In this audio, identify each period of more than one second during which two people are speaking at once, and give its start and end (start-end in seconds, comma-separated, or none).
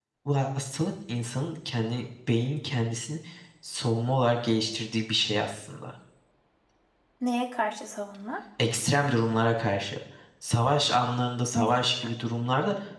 none